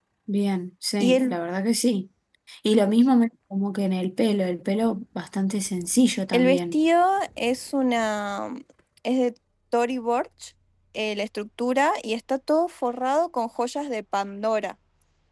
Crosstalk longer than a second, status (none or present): none